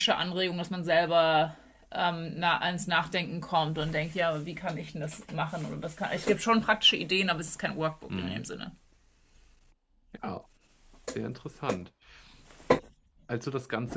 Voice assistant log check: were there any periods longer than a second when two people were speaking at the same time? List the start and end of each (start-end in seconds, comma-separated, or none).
none